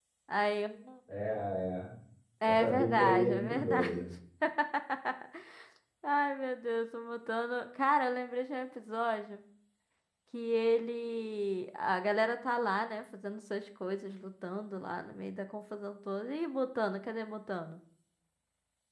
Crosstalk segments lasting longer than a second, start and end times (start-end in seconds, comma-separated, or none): 2.4-3.9